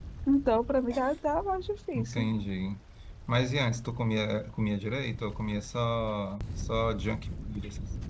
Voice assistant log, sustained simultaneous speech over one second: none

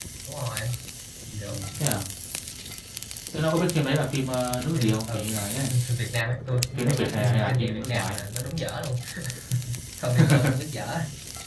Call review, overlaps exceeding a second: present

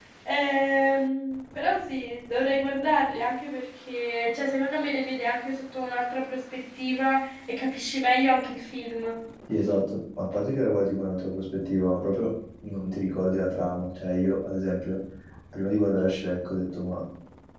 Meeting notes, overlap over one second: none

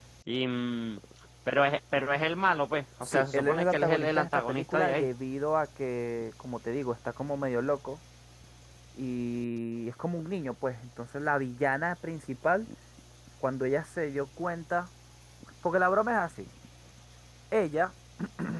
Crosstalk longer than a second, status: present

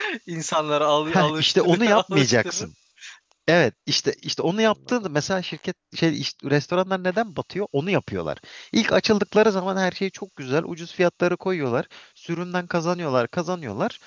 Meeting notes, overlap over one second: present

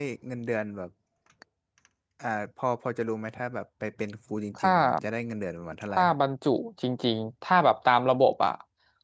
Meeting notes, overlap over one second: none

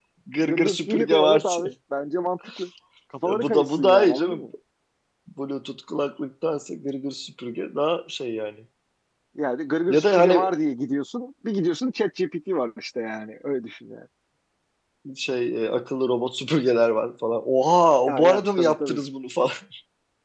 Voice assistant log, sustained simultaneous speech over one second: present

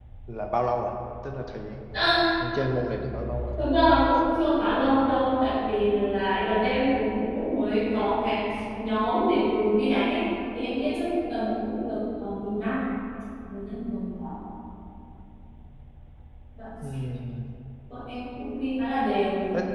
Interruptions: none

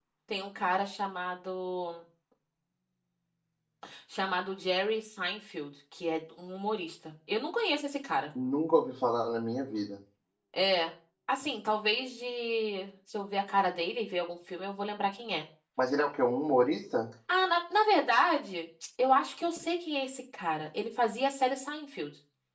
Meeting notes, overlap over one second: none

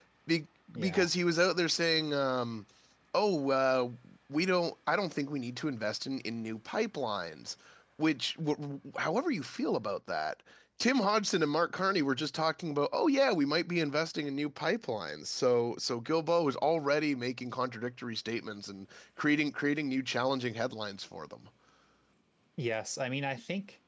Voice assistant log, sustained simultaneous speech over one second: none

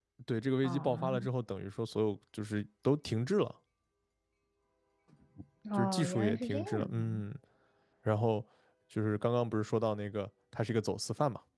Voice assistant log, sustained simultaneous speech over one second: present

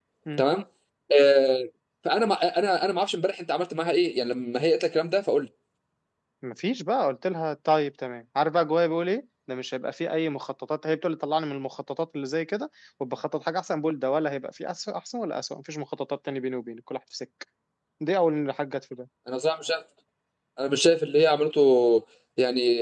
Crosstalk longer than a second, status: none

